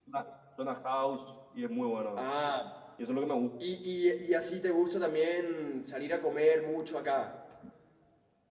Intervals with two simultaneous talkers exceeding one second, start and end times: none

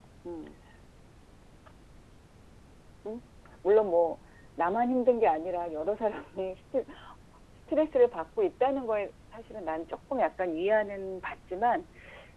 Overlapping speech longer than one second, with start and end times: none

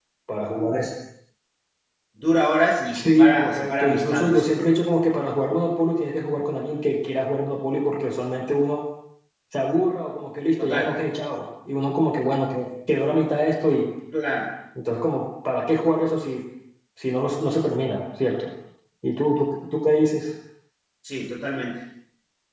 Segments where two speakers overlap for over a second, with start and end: 2.9-4.5

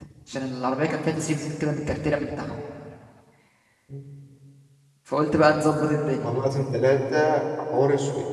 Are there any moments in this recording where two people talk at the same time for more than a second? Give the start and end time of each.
none

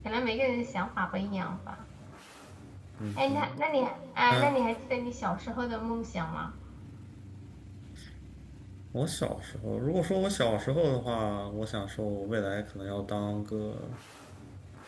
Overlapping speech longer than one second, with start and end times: none

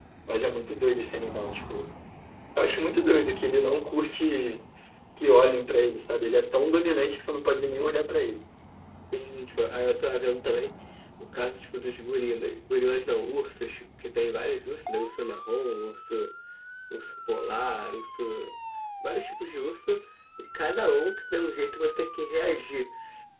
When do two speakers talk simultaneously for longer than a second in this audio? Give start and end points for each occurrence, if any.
none

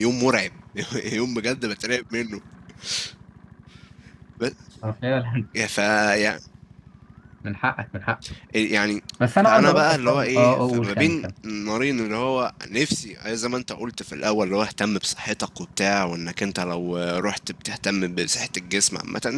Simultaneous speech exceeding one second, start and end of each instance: 9.4-11.3

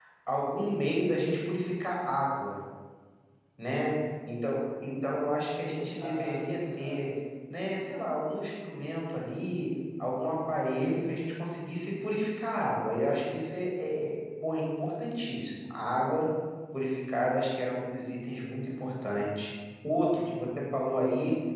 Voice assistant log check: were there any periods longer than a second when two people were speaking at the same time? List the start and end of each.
5.8-7.1

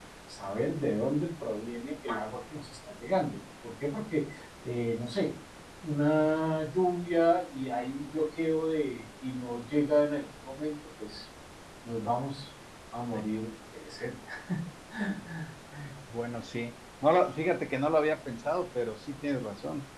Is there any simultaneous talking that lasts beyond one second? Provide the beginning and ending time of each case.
none

